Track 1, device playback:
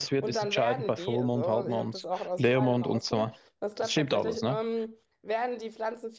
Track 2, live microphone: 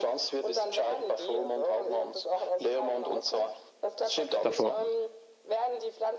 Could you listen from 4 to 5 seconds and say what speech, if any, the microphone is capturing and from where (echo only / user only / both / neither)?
both